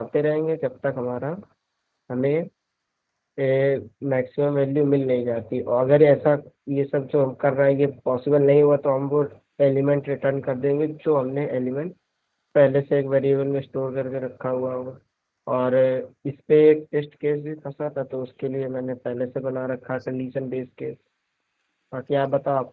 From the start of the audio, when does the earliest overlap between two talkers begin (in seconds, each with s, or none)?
none